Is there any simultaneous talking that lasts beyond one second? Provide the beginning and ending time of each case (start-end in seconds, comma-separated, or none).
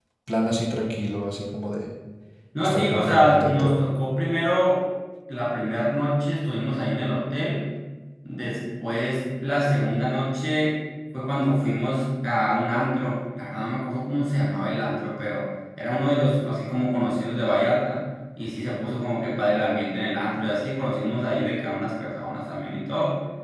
2.6-3.8